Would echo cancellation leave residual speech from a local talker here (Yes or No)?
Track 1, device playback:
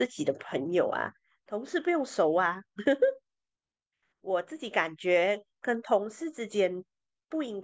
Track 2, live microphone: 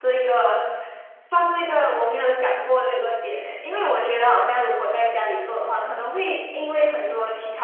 Yes